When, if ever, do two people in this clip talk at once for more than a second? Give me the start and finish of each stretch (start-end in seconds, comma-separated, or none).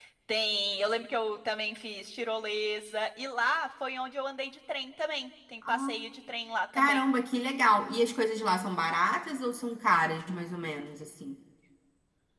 none